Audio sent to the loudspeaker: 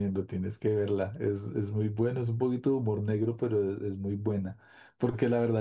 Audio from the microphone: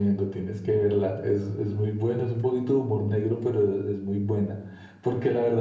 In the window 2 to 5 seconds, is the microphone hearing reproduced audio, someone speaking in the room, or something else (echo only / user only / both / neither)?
echo only